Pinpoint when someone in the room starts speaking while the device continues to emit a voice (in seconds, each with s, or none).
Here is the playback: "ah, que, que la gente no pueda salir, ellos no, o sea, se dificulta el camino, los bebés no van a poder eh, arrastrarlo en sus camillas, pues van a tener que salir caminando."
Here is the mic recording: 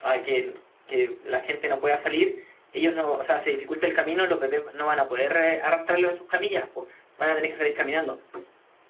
none